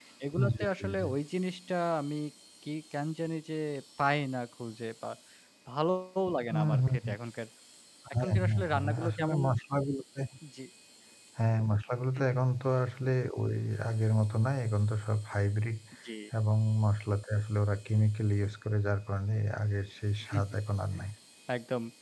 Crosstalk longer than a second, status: present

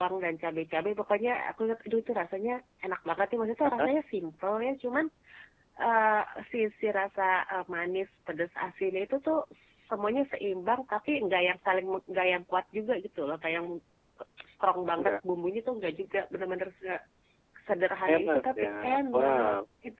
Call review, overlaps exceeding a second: present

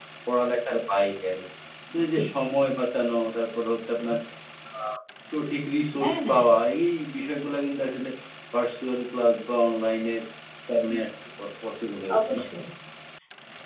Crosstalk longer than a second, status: none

